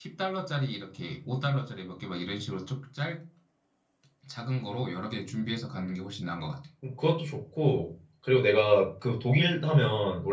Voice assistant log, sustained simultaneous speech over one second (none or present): none